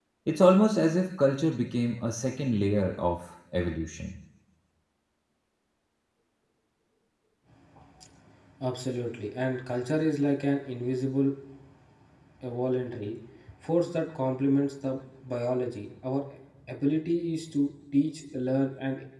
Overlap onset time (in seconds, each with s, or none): none